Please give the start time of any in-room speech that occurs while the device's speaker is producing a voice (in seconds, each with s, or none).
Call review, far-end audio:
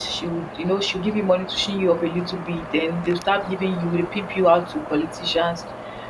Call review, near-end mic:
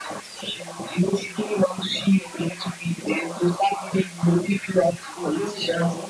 5.1 s